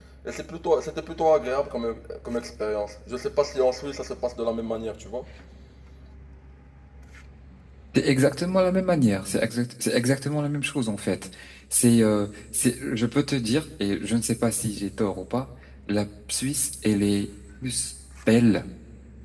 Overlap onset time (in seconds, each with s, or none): none